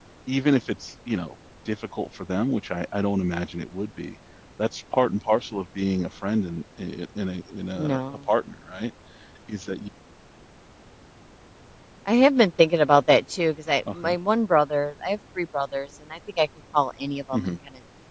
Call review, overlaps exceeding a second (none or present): none